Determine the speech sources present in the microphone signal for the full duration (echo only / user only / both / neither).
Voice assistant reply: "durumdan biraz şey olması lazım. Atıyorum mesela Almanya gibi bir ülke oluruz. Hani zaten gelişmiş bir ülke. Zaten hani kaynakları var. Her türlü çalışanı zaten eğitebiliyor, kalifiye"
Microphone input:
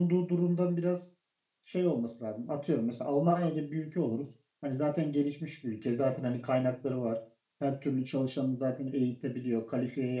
echo only